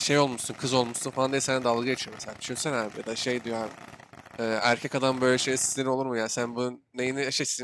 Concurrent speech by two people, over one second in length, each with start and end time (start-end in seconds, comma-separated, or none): none